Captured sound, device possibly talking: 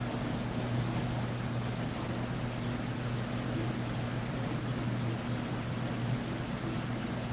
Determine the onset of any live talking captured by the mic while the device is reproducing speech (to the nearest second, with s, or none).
none